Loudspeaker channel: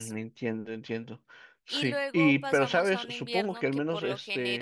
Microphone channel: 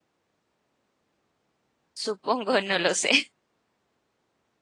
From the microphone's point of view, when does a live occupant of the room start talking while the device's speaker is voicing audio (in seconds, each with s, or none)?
1.9 s